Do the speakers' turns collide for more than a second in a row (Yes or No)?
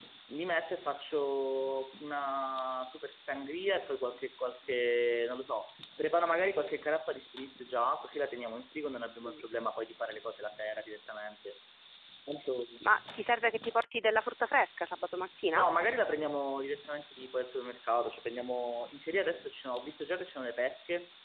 No